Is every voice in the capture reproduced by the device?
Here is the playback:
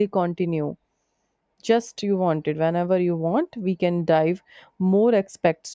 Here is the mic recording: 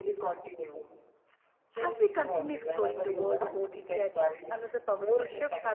No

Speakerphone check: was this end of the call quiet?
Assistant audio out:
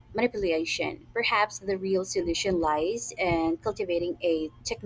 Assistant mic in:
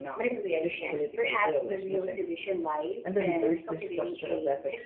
No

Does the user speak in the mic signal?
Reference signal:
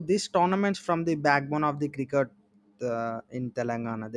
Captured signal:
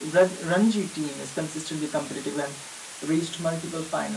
Yes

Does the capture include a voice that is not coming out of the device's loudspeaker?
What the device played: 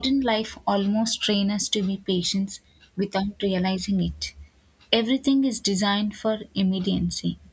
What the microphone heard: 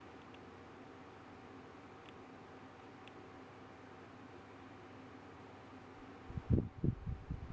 No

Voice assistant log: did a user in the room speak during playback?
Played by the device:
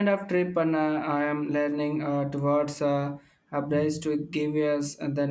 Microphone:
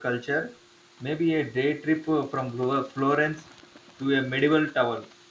Yes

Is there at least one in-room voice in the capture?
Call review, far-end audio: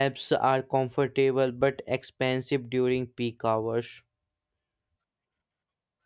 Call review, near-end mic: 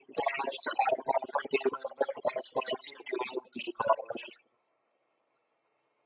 No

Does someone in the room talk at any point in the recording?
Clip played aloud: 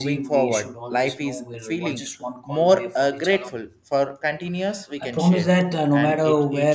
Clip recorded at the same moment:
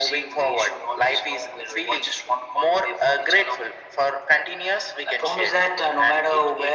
No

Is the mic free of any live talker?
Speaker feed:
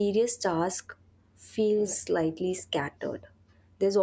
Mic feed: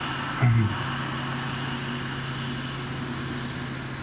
No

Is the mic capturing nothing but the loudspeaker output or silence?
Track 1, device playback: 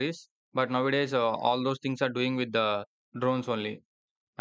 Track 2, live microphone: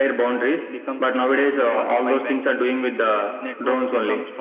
No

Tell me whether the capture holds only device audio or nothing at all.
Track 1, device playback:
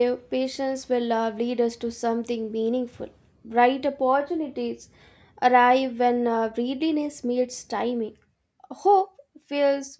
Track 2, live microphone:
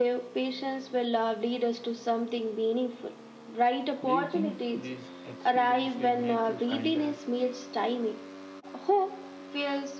No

